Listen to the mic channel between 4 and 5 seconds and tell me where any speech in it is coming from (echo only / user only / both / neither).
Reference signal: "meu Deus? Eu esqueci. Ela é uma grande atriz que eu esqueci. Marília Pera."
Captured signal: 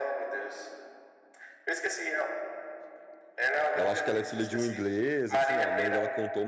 both